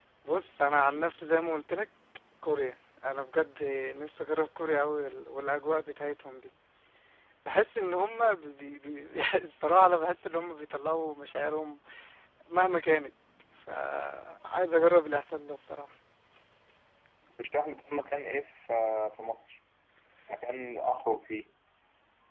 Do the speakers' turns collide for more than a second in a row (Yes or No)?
No